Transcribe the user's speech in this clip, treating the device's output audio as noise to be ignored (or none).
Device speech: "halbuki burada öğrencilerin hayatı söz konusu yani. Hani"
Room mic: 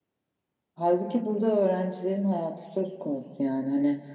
none